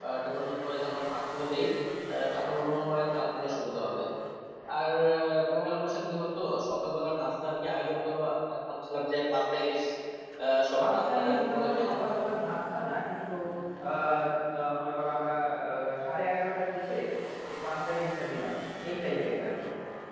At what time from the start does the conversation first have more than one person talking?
10.8 s

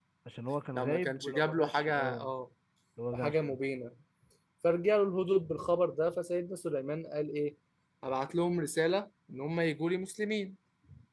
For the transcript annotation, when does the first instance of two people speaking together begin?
0.7 s

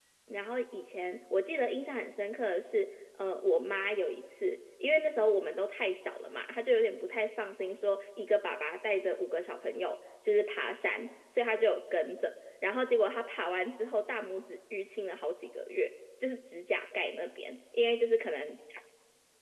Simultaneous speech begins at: none

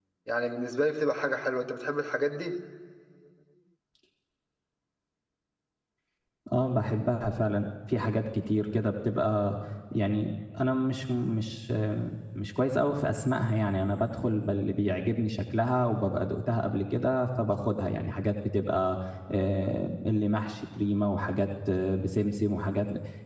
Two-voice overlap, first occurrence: none

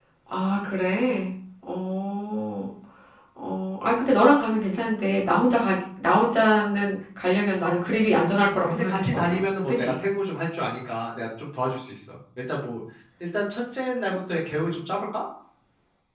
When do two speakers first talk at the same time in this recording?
8.5 s

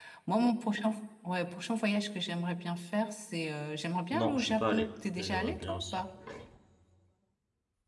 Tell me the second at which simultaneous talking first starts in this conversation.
4.1 s

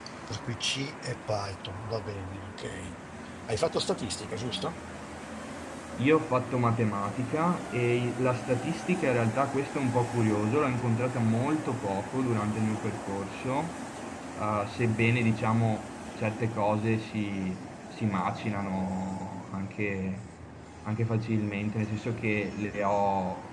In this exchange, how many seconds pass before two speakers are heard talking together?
none

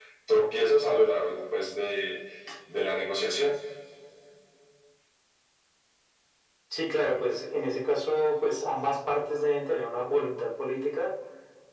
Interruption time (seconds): none

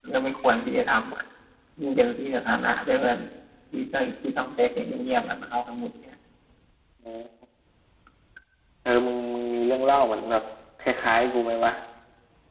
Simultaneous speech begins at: none

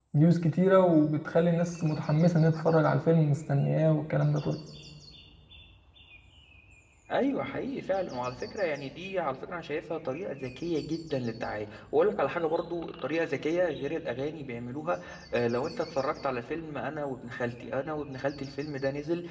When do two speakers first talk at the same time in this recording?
none

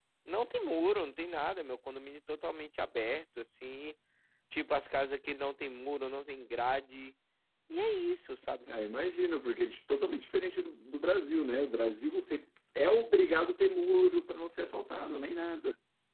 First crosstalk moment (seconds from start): none

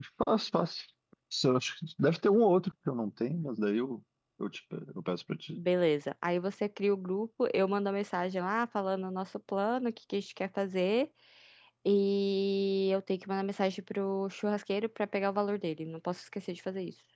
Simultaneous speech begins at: none

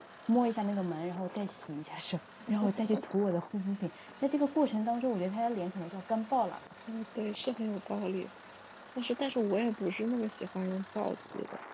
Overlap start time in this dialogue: none

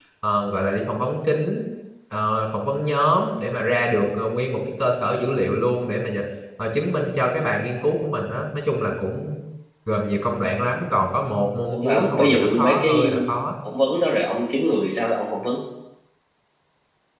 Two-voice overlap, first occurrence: 11.7 s

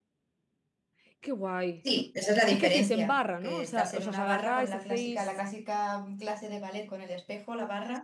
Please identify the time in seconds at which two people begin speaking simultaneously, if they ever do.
2.5 s

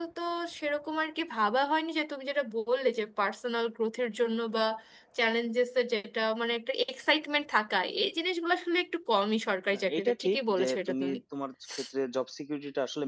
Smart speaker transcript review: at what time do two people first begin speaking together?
9.7 s

